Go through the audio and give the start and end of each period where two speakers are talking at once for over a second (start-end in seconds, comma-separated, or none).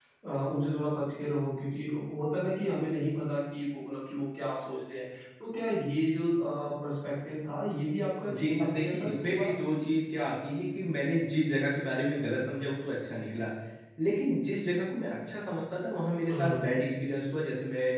8.3-9.5